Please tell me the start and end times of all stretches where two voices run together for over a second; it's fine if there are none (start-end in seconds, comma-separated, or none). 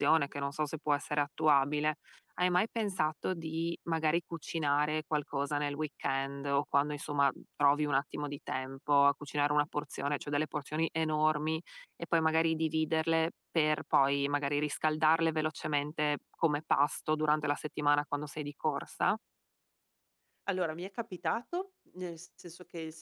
none